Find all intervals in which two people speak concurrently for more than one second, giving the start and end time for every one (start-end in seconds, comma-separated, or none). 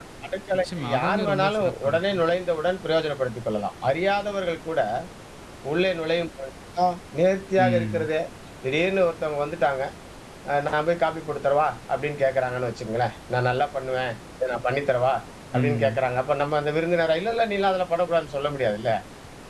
0.6-2.2